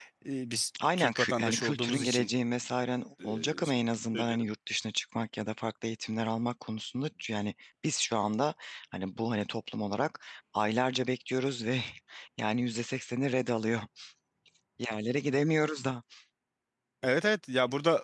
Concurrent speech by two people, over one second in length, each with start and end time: 1.0-2.3

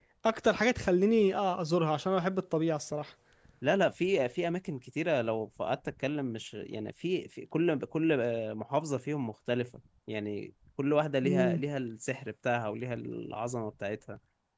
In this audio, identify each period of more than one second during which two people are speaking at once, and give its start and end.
none

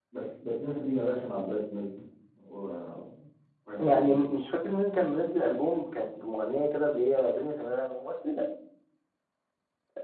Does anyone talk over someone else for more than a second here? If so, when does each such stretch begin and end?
none

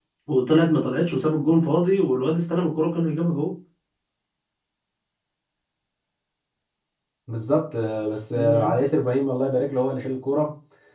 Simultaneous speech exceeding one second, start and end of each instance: none

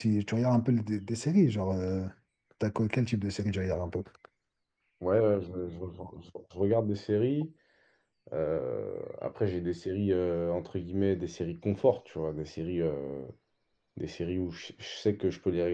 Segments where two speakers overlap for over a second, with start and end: none

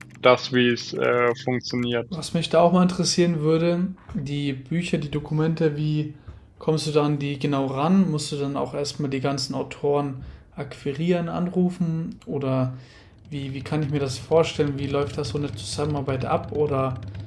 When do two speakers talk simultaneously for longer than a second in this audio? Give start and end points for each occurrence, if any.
none

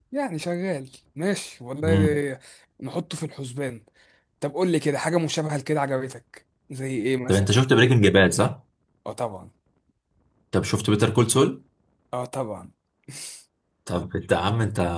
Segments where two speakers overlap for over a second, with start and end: none

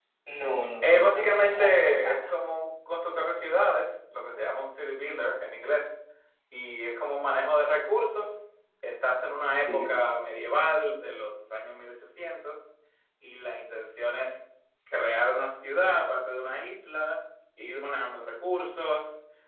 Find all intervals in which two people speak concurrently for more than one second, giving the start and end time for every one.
0.8-2.3

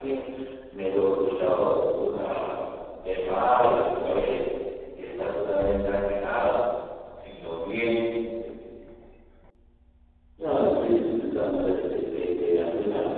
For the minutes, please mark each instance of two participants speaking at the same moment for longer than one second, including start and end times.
none

